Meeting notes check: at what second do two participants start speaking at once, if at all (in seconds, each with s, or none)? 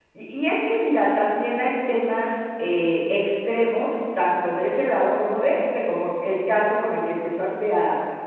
none